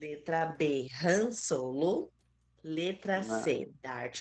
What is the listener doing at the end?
listening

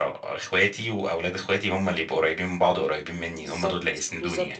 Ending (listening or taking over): taking over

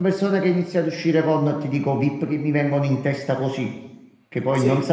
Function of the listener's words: listening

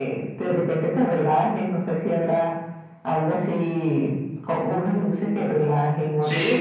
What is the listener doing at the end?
taking over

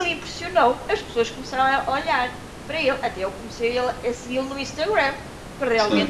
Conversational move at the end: listening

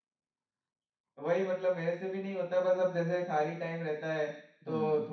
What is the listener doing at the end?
listening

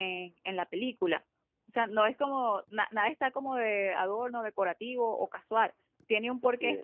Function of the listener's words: listening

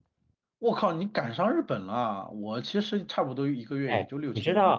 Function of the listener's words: taking over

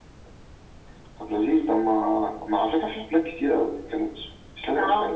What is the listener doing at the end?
taking over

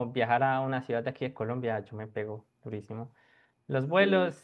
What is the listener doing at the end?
listening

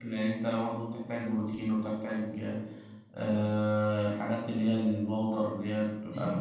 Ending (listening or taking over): taking over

